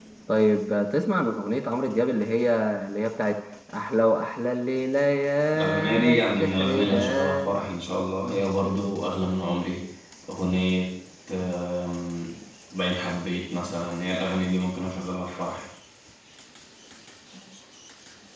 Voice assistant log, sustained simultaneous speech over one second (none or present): present